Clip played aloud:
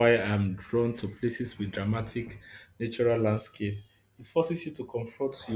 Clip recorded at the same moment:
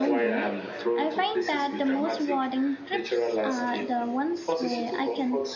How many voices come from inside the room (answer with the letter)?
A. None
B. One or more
B